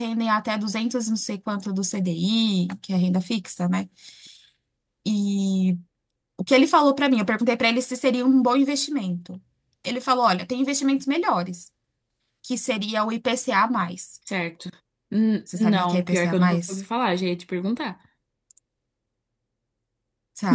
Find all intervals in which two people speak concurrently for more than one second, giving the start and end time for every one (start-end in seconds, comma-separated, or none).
15.6-16.8